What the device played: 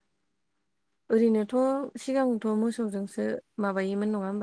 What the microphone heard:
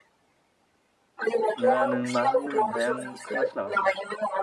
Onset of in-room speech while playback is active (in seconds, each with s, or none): 1.6 s